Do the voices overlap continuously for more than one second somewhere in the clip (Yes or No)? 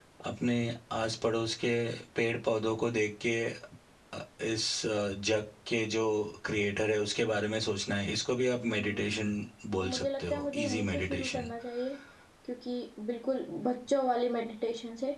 Yes